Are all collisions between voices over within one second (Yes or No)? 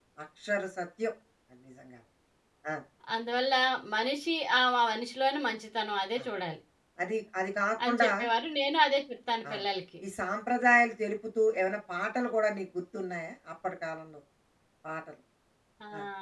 Yes